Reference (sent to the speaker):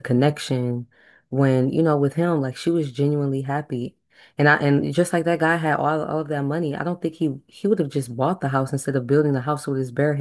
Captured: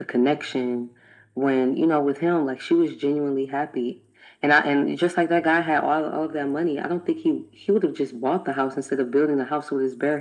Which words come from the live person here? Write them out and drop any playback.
none

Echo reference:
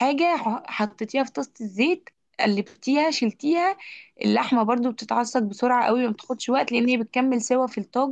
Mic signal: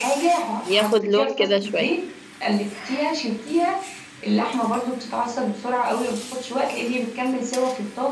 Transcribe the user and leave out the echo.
ياخد لون كده شوية

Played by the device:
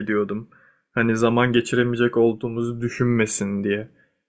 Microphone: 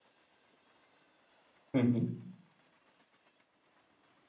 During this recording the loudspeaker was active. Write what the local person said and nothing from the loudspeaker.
Hı hı.

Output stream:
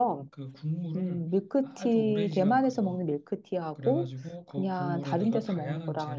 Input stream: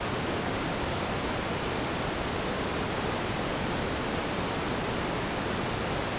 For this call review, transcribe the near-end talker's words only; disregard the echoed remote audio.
none

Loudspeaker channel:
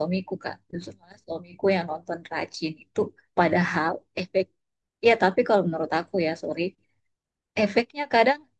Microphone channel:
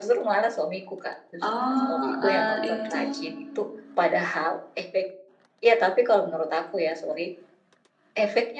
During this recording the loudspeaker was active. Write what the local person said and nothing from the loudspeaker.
Oh, eh, itu...

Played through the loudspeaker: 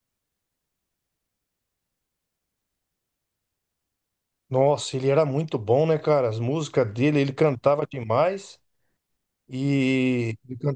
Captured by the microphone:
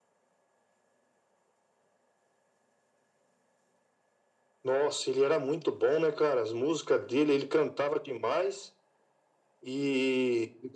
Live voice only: none

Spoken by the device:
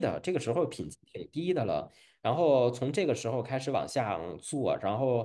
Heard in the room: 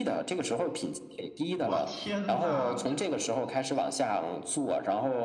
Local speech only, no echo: 我天呐，这

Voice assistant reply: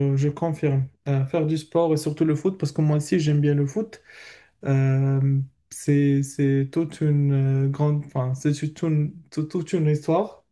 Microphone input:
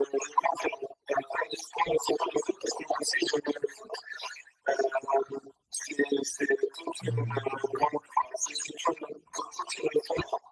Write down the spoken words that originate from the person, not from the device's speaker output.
hmm.

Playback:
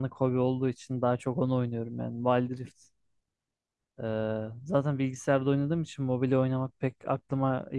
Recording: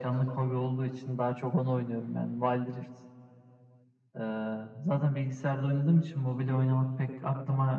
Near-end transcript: none

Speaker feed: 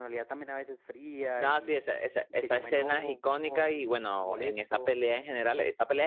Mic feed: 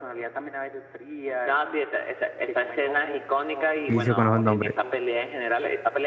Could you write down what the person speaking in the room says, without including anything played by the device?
vicio con esos nombres.

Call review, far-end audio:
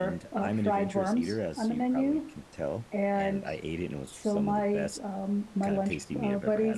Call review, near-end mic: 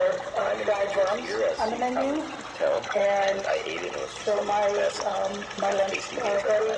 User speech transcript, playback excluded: none

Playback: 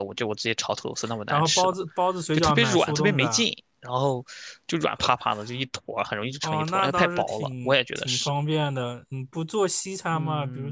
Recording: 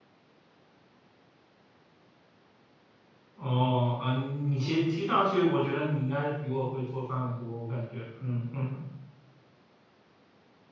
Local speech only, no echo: 哦啊，你其实听上去，我觉得你应该是比我会做饭的多，我感觉。嗯嗯

